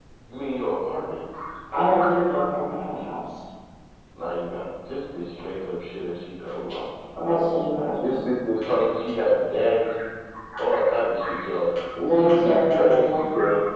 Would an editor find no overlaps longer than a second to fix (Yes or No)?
No